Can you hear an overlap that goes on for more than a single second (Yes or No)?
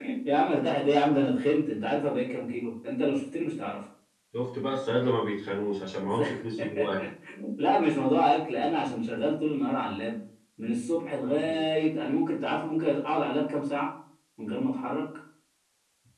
No